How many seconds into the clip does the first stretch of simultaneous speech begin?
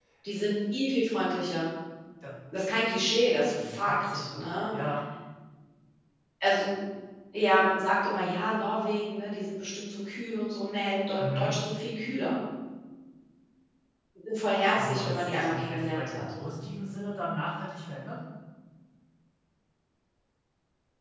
3.5 s

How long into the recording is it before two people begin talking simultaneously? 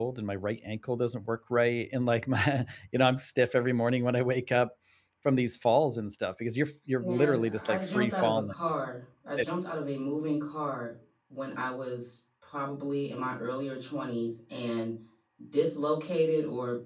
7.0 s

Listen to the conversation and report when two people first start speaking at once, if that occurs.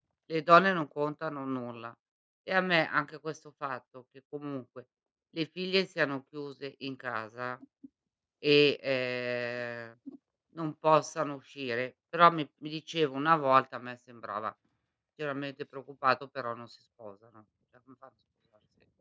none

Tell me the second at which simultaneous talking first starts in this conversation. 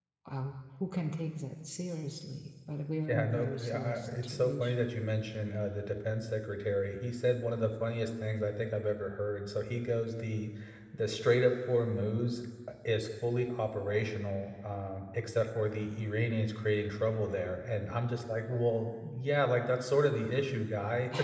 3.1 s

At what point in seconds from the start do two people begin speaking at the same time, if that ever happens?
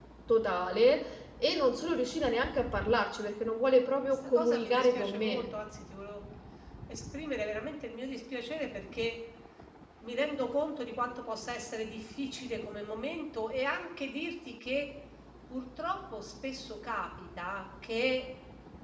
4.0 s

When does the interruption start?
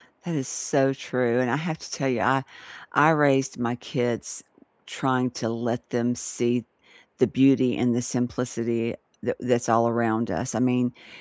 none

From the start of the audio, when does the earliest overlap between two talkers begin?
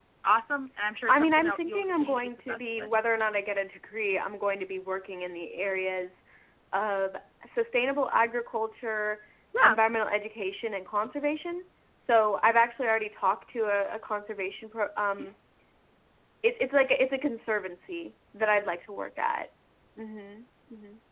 1.1 s

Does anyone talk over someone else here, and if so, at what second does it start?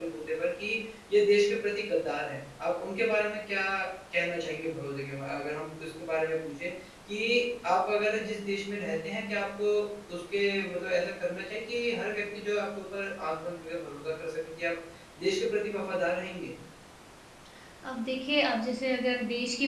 none

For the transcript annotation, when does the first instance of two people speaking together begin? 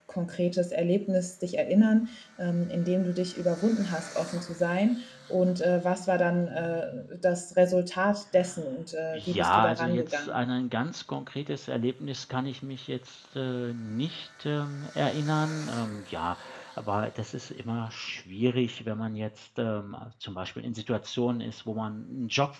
9.1 s

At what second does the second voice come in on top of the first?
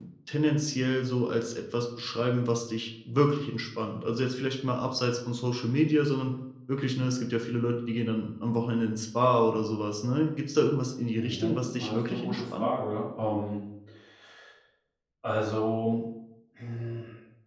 11.2 s

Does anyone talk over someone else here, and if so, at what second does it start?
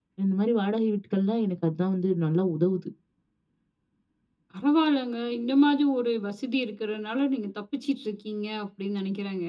none

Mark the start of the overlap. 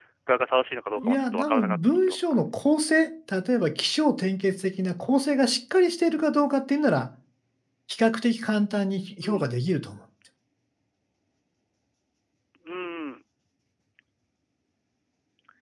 1.0 s

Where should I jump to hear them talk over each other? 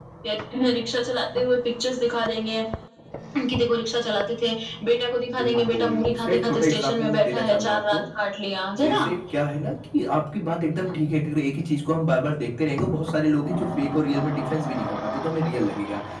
5.3 s

